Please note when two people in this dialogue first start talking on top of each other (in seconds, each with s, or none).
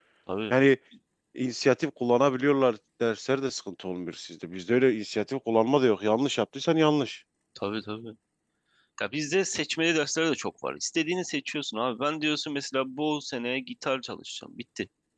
none